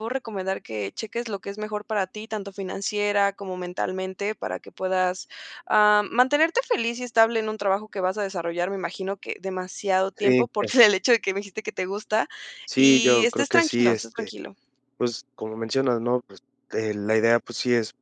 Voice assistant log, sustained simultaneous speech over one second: present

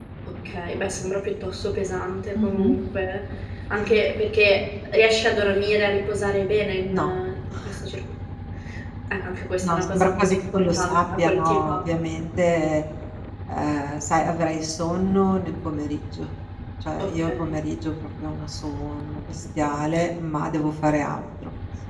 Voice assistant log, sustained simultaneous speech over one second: present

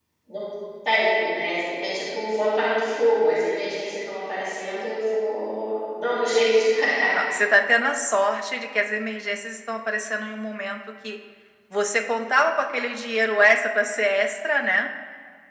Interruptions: none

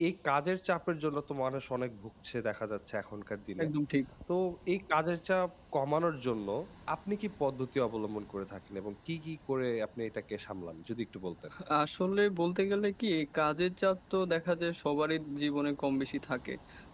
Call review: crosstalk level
none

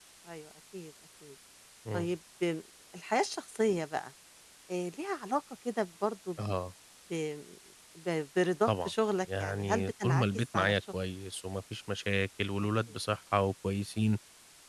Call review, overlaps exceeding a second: present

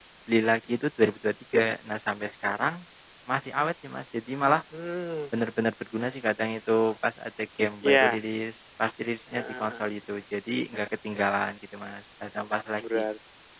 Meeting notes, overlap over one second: none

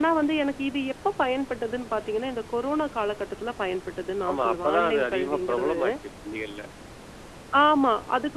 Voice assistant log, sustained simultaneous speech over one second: present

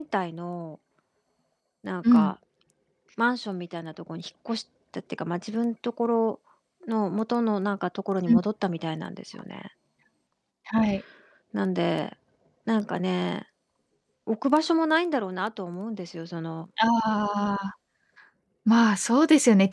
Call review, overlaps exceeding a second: none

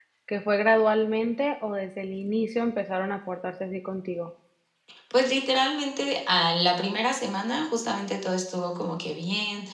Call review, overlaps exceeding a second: none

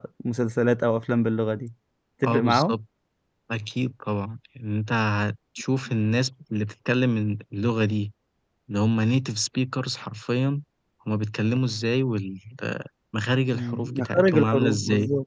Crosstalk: present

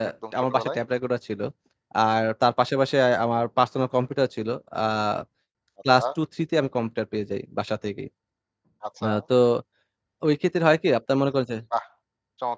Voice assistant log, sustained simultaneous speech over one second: none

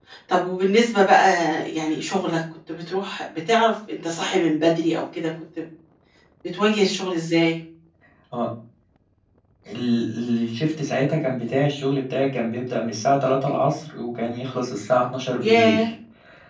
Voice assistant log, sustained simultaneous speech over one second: none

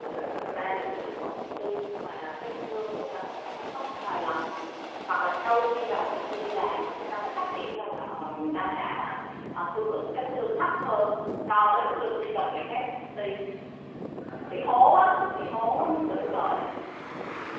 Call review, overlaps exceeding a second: present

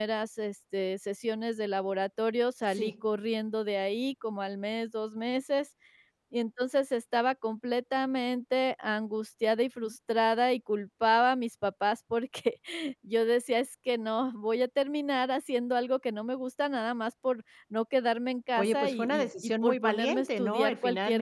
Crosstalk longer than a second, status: present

